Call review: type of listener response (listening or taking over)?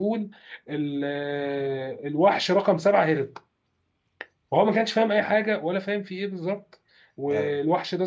listening